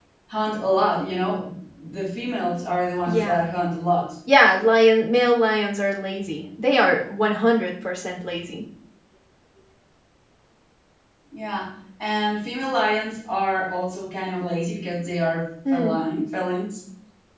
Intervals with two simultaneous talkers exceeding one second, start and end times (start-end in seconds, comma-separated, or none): none